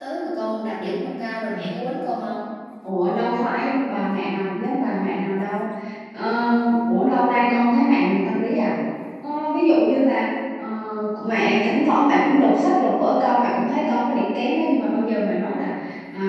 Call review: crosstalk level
none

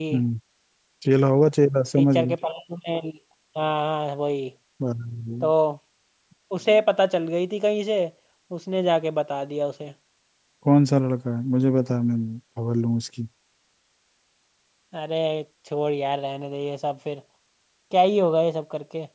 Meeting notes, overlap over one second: none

